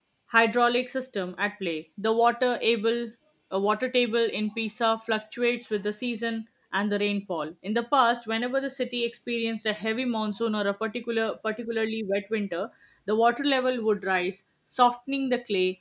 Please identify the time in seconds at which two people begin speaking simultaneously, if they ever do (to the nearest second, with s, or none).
none